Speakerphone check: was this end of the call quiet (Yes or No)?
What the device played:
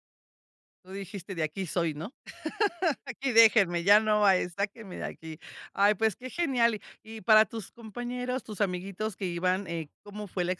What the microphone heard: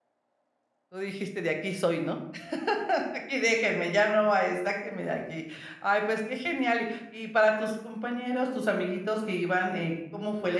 Yes